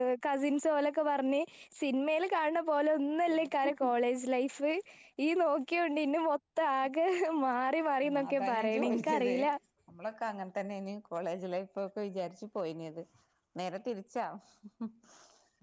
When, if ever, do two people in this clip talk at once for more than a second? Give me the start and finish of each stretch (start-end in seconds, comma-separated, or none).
8.1-9.4